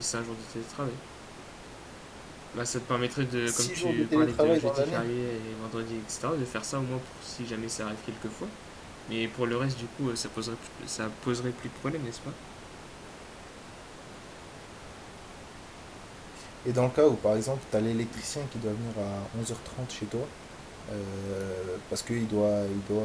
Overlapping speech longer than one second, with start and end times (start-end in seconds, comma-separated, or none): 3.5-5.0